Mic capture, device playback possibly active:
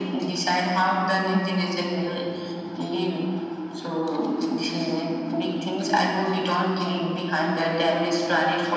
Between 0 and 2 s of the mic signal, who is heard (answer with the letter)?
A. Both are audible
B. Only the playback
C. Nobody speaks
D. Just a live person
B